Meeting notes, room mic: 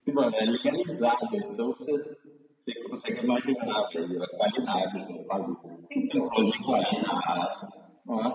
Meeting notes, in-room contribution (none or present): none